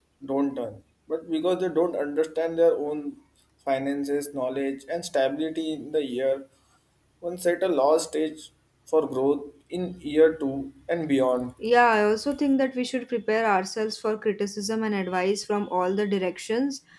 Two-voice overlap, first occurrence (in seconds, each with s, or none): none